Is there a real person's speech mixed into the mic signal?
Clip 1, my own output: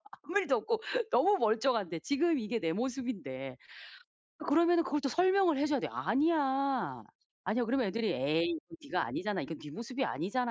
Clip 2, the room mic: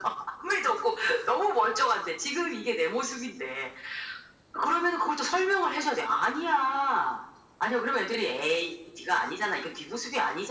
No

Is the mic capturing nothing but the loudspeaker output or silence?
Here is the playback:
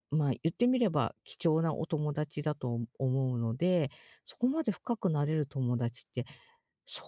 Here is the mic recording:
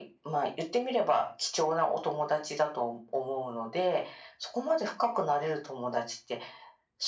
Yes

